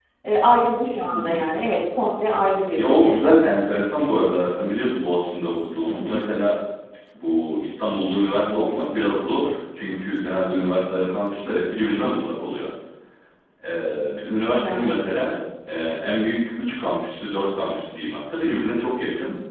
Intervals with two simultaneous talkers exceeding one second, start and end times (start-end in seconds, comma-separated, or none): none